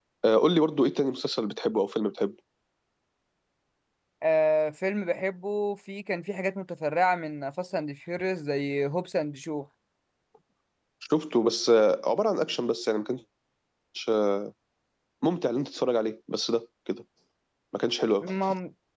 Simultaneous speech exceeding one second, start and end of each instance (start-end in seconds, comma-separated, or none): none